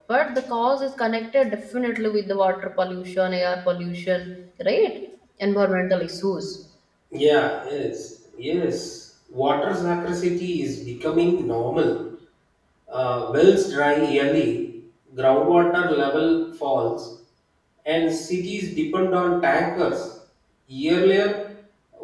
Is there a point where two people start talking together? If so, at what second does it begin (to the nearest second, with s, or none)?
none